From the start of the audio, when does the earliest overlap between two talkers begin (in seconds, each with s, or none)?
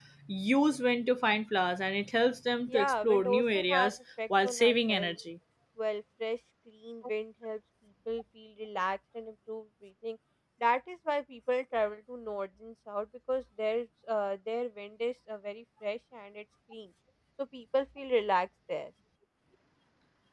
2.7 s